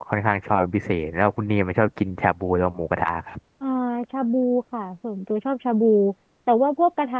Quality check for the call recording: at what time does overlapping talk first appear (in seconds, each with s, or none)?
none